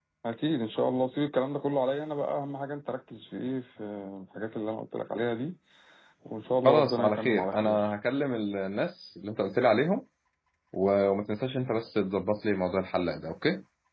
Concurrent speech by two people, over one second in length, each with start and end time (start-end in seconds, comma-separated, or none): 6.6-7.8